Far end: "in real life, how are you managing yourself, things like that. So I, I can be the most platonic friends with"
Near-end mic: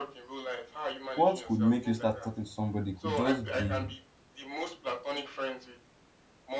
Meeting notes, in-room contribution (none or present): present